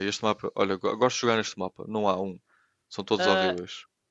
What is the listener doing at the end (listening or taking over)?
taking over